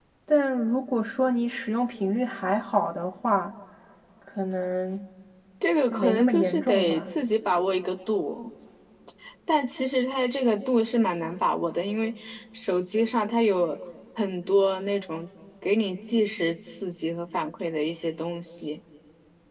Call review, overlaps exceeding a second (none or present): present